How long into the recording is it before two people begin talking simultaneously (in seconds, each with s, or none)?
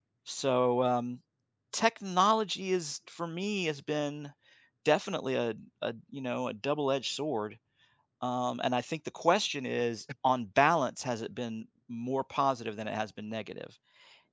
none